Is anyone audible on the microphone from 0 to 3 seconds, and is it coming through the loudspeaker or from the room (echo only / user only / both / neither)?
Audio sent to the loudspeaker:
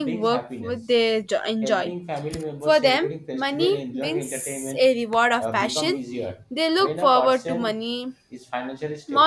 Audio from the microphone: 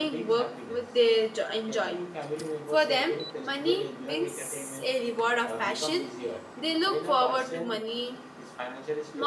echo only